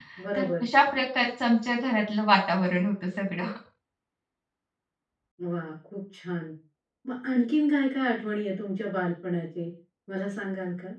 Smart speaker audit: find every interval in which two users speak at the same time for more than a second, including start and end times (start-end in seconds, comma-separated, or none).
none